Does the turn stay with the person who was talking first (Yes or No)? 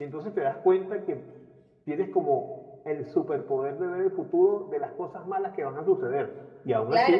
No